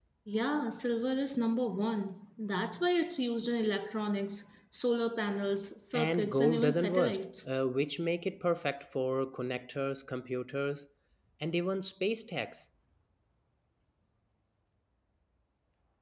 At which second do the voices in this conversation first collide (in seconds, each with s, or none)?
5.9 s